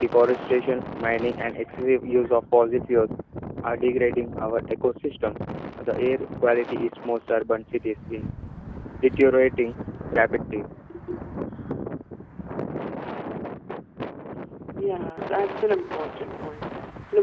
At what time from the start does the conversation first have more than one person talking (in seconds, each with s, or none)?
none